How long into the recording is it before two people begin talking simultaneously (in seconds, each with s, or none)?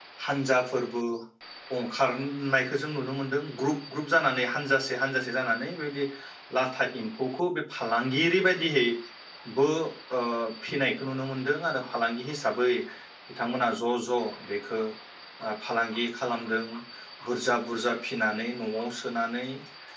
none